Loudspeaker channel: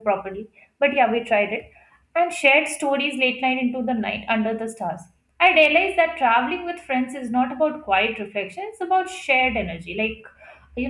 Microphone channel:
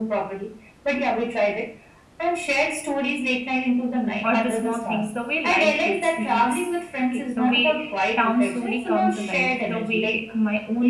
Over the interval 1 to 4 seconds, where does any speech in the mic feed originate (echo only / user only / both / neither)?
echo only